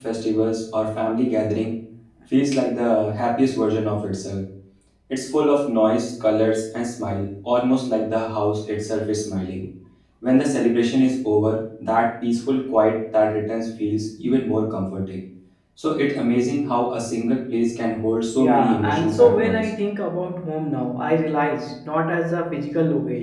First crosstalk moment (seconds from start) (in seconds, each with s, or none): 18.4 s